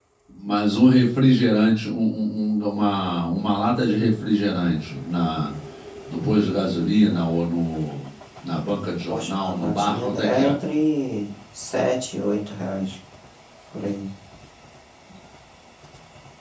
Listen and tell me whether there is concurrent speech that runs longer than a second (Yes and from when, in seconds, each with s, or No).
Yes, from 9.1 s